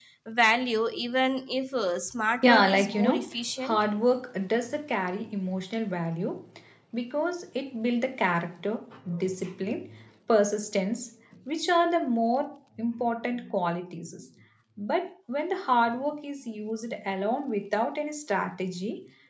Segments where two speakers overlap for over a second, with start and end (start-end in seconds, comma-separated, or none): 2.4-3.8